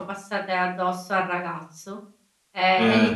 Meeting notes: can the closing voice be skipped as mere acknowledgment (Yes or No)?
Yes